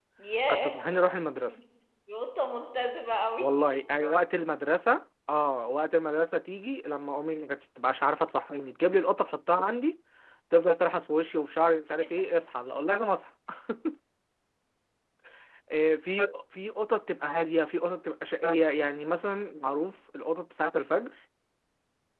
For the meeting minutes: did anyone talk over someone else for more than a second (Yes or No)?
No